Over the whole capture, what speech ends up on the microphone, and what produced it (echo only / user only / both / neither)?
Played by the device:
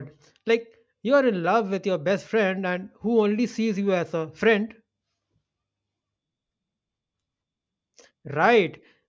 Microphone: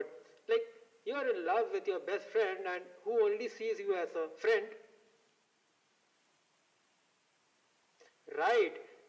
echo only